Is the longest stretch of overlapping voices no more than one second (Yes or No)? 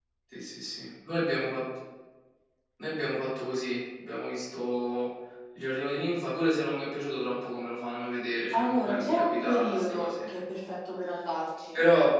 No